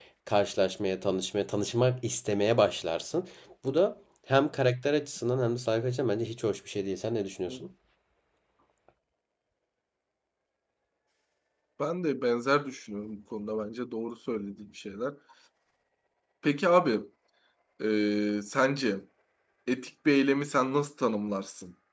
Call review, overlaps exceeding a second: none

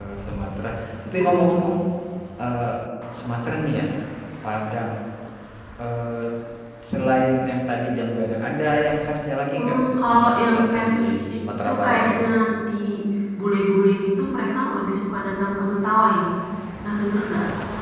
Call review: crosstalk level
present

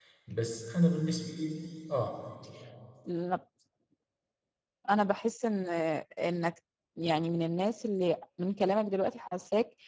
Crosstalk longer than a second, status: none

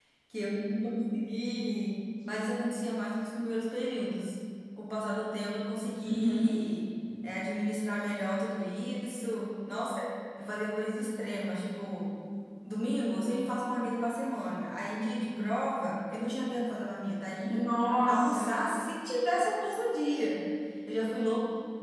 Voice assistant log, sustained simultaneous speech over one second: none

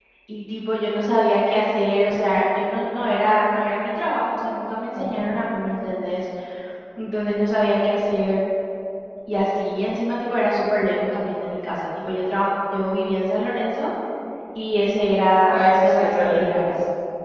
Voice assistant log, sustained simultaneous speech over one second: present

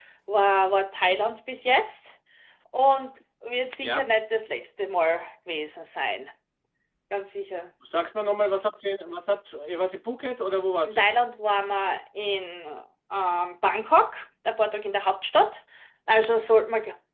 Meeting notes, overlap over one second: none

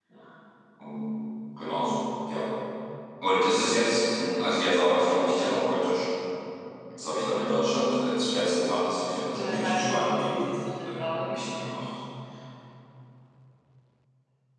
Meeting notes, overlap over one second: present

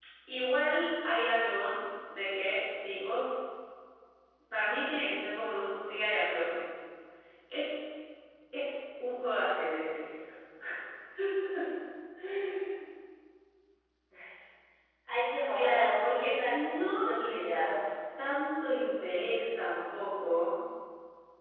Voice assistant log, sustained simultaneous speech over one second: present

